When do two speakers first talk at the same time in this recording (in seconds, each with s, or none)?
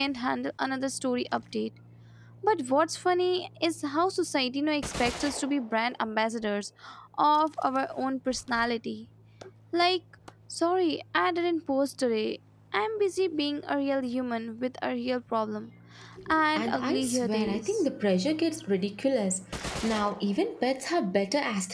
16.6 s